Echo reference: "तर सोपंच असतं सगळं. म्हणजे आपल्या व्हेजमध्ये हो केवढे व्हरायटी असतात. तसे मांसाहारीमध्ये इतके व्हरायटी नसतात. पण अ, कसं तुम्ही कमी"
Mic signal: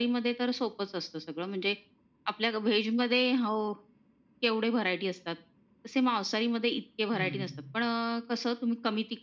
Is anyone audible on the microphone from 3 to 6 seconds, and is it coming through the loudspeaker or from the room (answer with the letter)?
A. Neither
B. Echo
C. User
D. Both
B